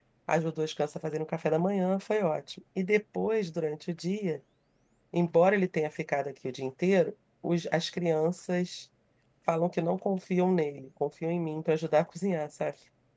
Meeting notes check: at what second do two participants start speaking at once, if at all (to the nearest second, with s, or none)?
none